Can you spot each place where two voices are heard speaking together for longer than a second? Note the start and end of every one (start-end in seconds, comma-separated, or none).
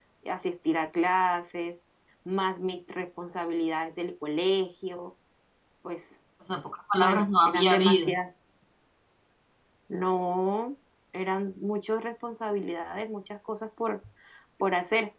7.0-8.2